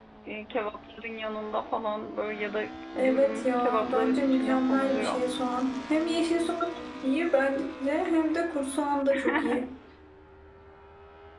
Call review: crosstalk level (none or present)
present